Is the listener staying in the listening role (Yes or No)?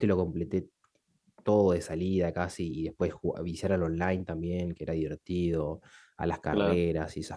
Yes